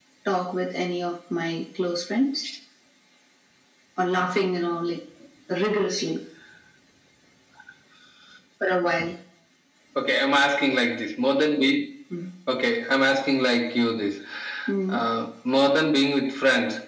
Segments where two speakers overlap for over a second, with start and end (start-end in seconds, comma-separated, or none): none